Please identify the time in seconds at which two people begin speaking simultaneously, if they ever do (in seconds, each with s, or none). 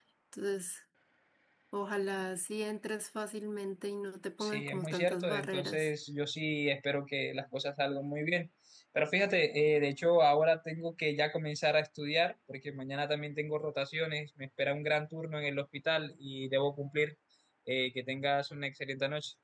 4.4 s